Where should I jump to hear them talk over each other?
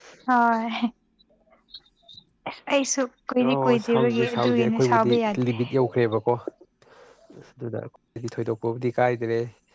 3.4 s

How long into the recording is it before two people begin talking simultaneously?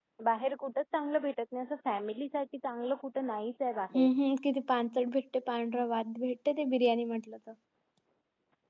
none

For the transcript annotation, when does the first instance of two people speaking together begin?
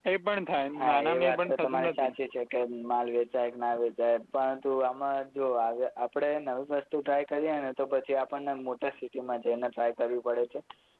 0.8 s

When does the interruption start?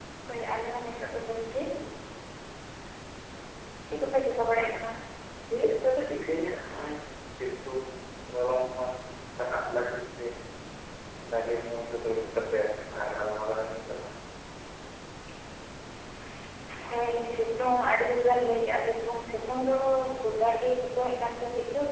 none

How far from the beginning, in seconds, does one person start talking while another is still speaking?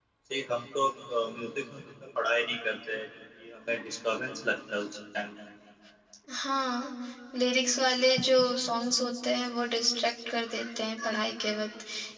none

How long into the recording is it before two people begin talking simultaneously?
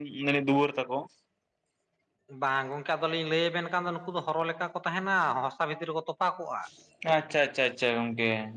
none

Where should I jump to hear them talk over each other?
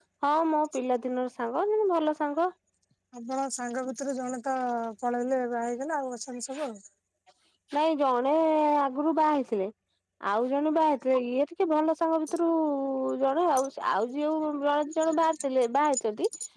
none

